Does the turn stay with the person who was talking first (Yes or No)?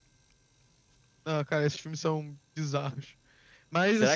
No